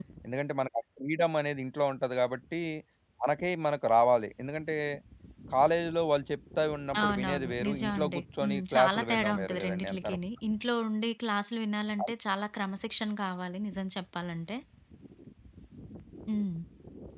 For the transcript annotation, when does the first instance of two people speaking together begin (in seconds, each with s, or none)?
6.9 s